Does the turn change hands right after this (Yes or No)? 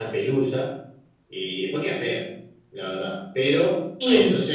No